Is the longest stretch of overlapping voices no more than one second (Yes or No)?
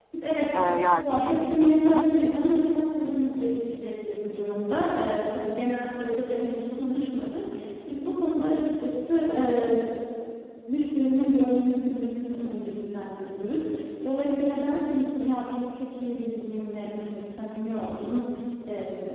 No